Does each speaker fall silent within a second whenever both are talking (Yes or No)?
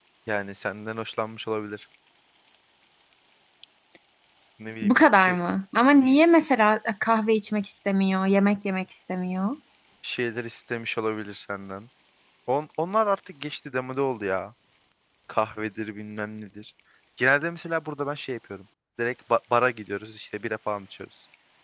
Yes